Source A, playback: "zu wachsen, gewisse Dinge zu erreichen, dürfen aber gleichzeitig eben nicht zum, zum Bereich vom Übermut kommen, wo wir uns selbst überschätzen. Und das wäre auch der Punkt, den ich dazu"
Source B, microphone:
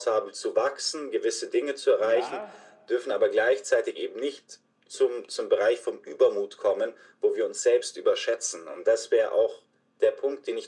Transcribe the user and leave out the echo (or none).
ja,